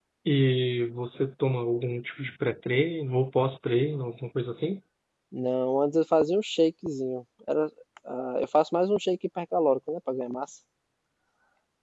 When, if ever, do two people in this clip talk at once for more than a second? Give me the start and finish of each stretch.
none

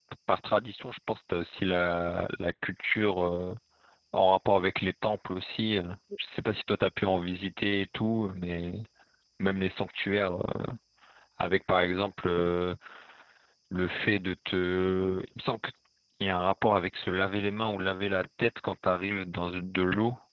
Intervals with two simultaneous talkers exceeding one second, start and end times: none

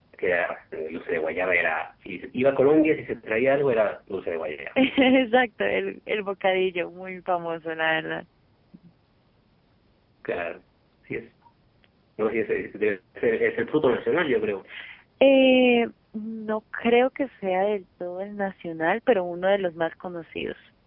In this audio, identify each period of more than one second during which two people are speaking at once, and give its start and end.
none

